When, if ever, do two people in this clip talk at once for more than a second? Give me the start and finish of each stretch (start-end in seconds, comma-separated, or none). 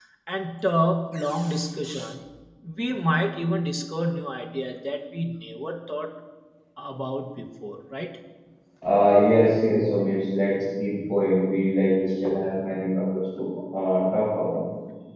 none